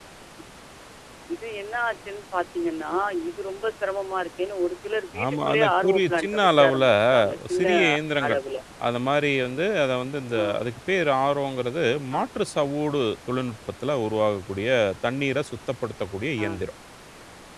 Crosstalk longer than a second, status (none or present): present